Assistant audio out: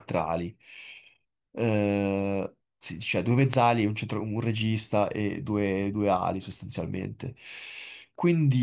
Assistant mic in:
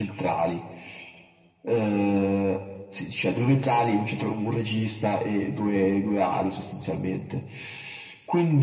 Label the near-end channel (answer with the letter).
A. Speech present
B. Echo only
B